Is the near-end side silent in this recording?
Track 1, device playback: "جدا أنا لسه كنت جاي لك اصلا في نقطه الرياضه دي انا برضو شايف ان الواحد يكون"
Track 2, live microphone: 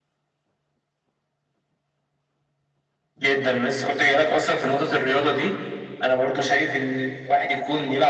Yes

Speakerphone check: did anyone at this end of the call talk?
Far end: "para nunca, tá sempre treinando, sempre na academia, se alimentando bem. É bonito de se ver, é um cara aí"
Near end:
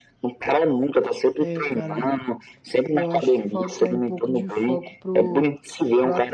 Yes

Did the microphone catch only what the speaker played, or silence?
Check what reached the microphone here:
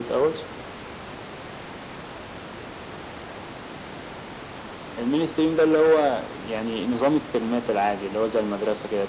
Yes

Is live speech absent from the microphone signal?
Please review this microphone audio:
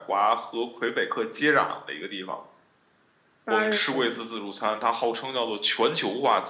No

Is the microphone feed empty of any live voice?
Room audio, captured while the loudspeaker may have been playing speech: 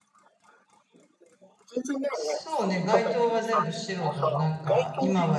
No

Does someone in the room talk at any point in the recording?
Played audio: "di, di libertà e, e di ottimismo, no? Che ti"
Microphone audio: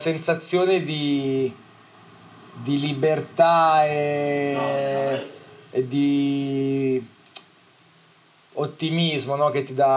Yes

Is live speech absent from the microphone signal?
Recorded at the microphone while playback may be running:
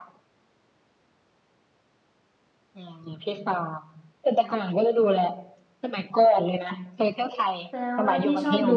No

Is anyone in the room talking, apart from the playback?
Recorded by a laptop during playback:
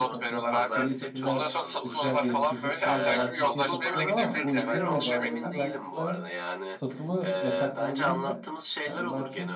Yes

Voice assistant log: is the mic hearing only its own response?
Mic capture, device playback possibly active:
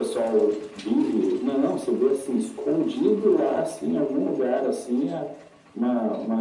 Yes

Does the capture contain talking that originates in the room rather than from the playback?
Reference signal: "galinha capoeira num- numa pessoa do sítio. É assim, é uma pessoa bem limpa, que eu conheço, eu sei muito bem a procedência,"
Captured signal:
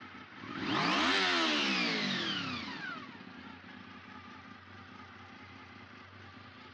No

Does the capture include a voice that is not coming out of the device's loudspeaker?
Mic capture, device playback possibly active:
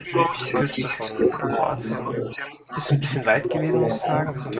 Yes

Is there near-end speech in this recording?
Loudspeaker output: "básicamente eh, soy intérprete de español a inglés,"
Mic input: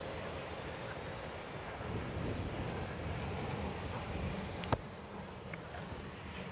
No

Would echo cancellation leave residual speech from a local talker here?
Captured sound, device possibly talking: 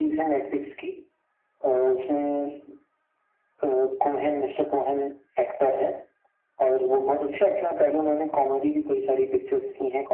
No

